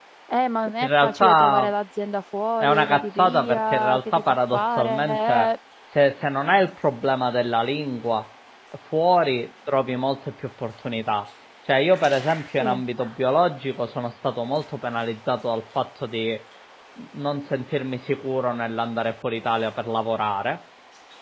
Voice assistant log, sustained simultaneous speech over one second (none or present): present